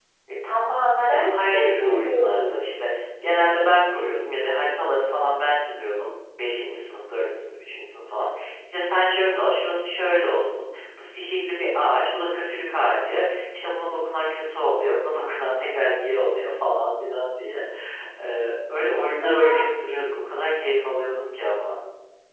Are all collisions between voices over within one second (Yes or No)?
No